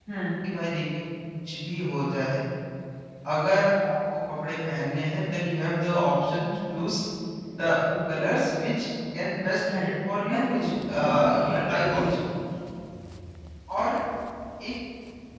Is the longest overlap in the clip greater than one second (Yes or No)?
Yes